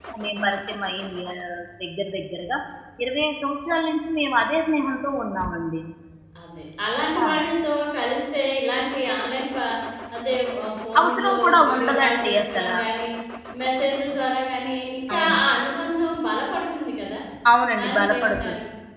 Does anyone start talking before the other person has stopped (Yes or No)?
Yes